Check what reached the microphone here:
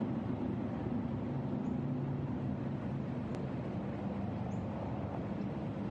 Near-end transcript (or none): none